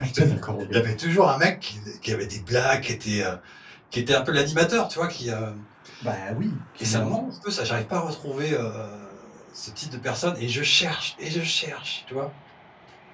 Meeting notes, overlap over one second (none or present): none